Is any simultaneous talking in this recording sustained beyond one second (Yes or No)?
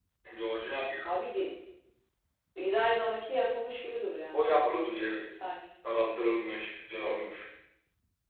No